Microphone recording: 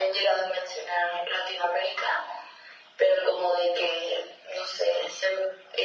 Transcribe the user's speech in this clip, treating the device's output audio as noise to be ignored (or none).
none